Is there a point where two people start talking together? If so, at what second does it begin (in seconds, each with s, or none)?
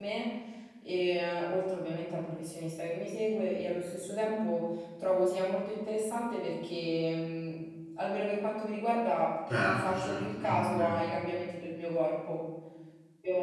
9.7 s